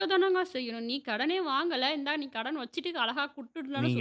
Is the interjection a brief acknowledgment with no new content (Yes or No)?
No